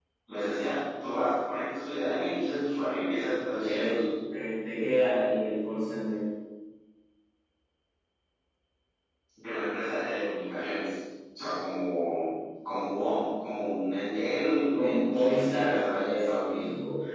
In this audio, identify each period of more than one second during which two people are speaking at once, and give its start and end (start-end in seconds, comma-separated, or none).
14.7-16.7